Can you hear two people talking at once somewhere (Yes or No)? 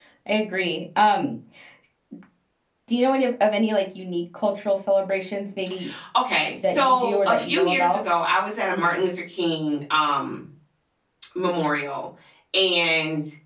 Yes